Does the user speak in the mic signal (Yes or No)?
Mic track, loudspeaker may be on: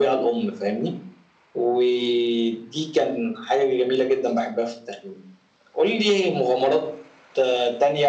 No